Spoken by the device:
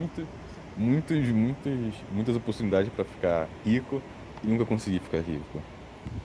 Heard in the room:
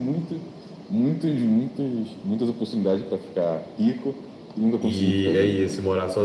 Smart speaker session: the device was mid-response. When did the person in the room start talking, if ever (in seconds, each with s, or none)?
4.8 s